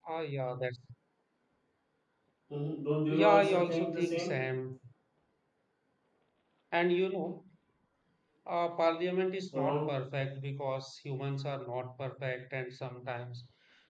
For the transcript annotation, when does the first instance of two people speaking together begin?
3.1 s

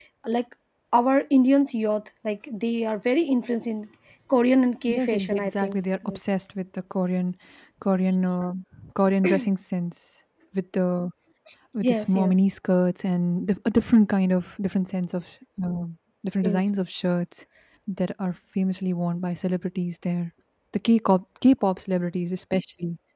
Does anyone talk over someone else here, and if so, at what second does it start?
4.9 s

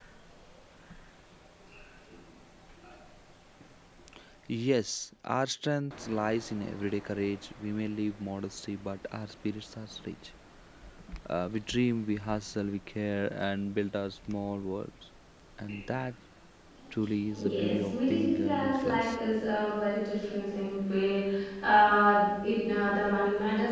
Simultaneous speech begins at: 17.5 s

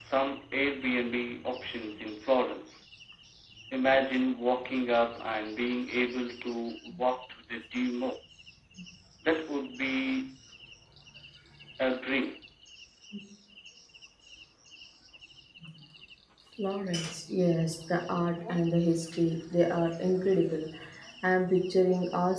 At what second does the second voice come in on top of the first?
none

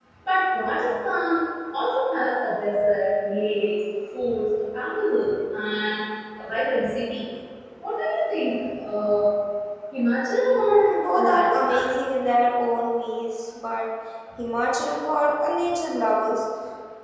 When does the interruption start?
10.6 s

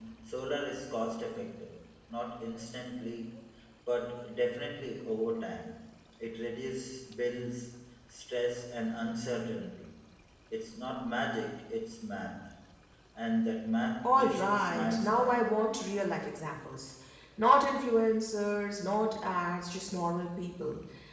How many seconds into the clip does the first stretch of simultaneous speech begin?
14.0 s

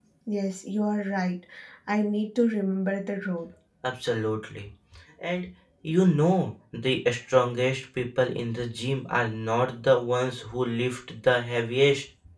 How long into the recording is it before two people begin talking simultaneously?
none

